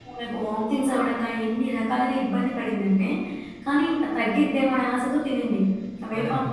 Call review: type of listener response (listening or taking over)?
taking over